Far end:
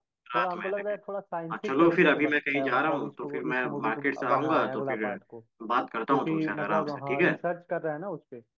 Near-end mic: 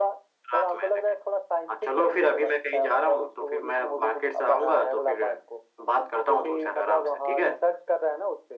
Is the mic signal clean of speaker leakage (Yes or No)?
No